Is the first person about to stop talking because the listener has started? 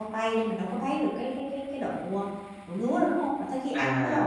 Yes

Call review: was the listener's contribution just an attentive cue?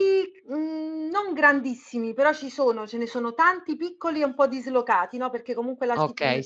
No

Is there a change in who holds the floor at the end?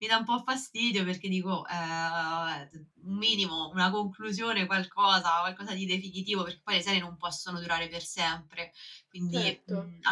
Yes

